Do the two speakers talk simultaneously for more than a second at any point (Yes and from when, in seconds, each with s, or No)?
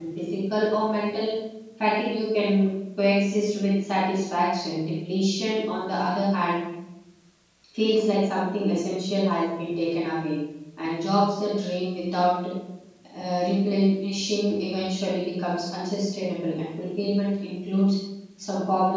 No